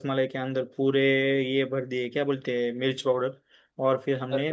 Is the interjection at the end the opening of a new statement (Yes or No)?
No